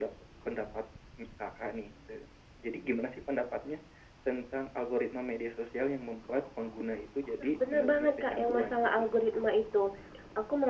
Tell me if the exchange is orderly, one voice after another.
No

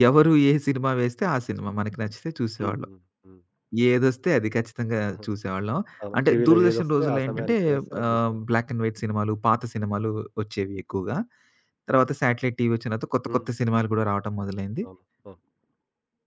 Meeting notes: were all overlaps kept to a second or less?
No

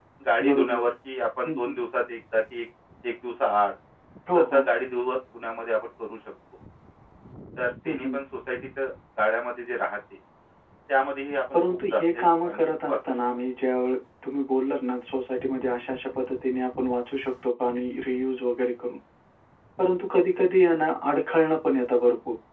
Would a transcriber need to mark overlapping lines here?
Yes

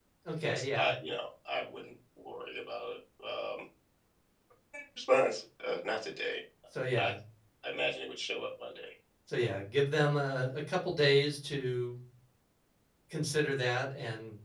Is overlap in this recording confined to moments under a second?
Yes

